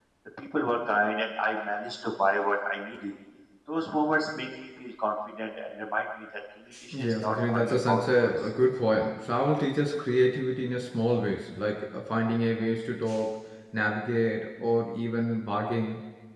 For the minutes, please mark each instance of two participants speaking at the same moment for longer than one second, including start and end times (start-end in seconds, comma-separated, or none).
6.9-8.3